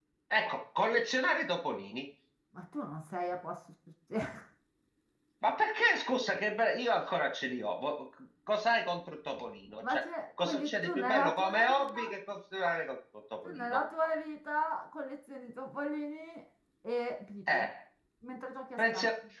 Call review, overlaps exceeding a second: present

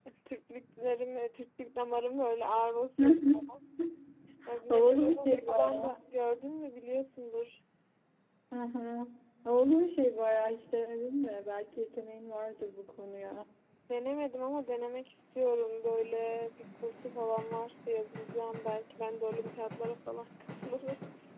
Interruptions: present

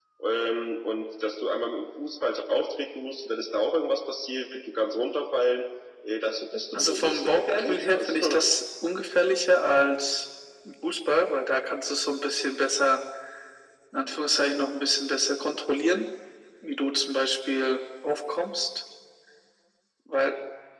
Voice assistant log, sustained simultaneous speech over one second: present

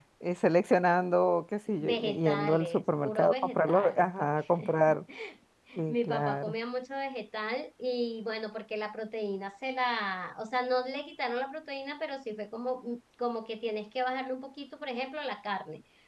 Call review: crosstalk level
present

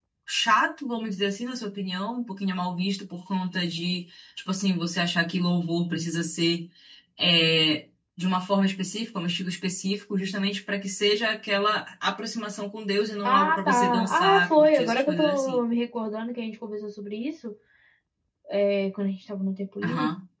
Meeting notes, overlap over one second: present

